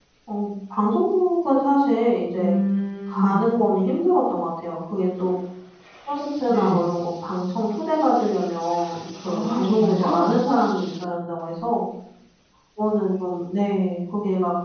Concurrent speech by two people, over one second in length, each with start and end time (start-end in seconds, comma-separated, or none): 9.2-10.5